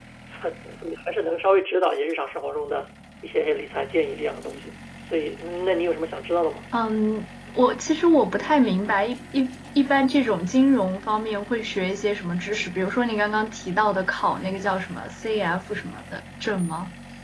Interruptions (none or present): none